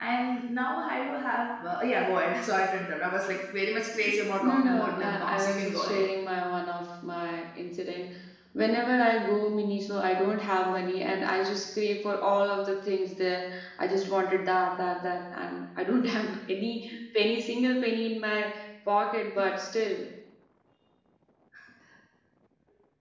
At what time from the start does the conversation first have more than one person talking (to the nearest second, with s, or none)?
4 s